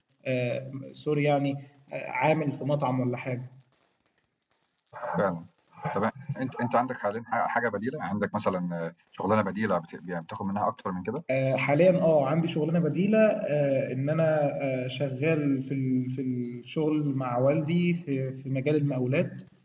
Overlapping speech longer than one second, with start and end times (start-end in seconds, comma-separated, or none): none